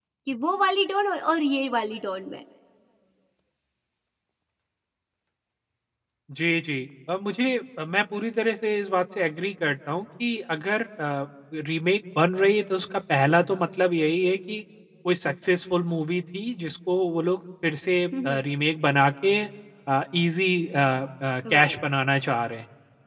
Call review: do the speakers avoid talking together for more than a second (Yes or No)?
Yes